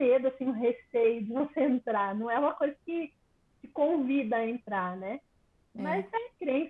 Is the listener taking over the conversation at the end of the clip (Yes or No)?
No